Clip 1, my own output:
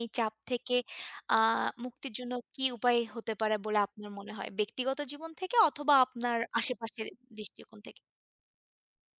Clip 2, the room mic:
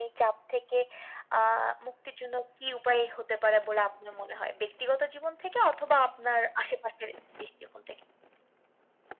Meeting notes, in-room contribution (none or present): none